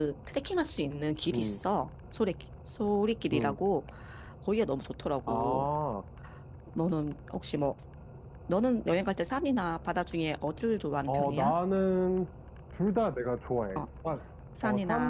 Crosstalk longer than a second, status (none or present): none